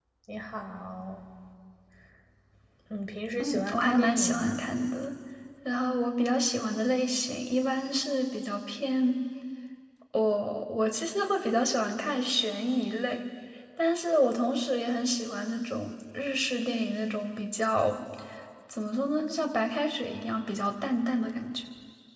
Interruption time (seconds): 3.4 s

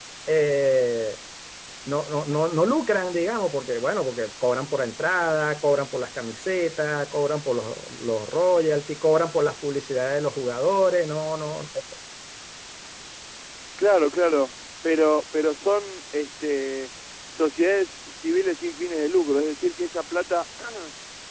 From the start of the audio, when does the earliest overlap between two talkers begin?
none

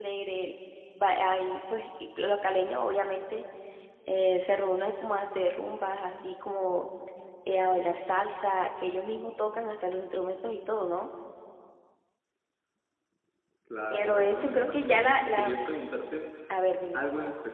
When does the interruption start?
13.9 s

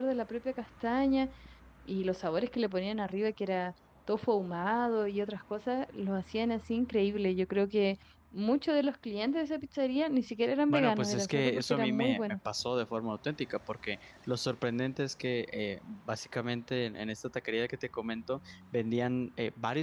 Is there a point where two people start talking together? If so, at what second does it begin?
10.7 s

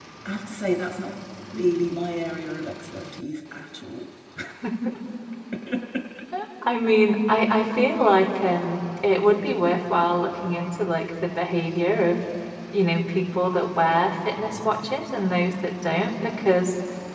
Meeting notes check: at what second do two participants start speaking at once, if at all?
none

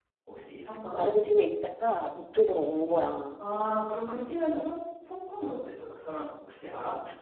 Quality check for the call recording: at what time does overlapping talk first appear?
none

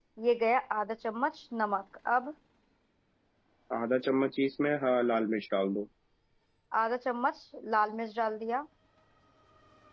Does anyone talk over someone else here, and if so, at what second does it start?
none

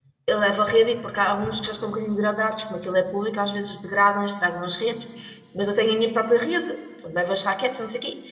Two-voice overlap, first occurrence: none

